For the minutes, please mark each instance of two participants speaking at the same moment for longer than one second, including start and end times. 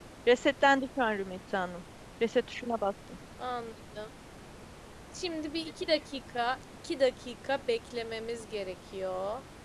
none

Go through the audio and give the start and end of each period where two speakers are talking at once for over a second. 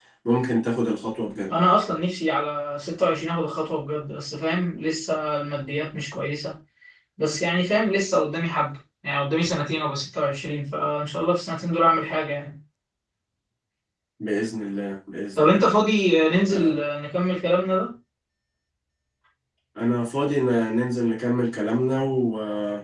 none

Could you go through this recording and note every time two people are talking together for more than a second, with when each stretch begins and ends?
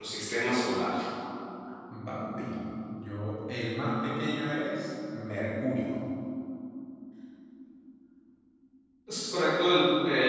none

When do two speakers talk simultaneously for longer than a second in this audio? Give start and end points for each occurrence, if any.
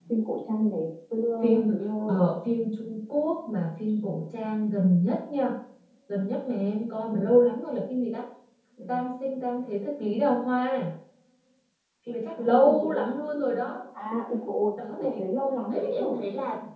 none

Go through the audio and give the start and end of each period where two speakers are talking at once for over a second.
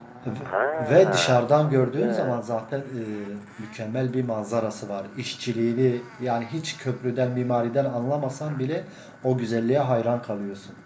0.8-2.4

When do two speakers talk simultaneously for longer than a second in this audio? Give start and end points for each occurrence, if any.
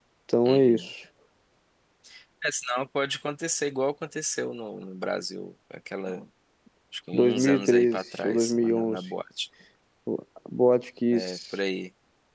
7.1-9.0

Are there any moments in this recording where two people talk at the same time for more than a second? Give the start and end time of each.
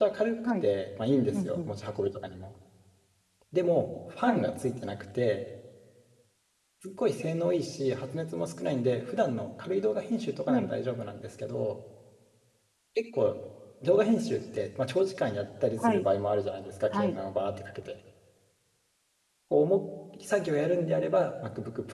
none

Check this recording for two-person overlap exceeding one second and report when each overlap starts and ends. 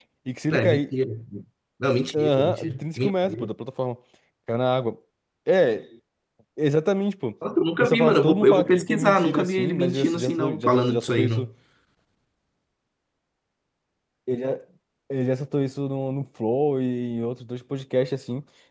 2.1-3.5, 7.8-11.5

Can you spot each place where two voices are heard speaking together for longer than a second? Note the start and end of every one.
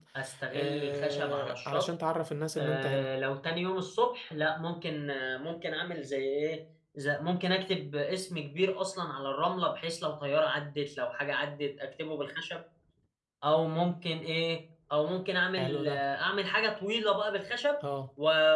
0.5-1.9

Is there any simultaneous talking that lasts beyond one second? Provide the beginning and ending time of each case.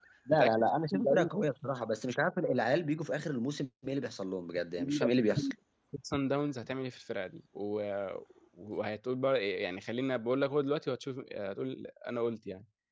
none

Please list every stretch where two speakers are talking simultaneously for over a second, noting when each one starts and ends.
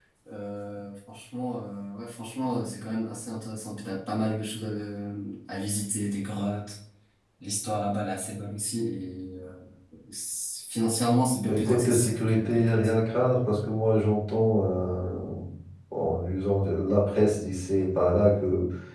11.5-12.7

